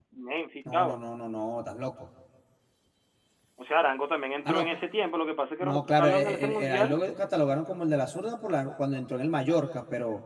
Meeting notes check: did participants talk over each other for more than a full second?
Yes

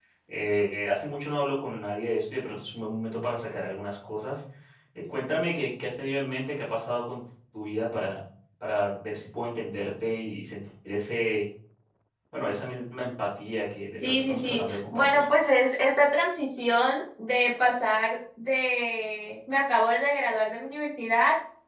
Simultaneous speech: Yes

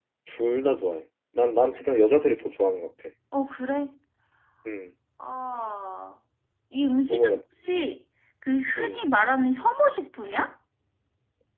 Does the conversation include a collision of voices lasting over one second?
No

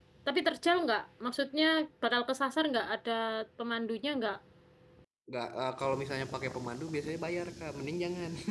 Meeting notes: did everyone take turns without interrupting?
Yes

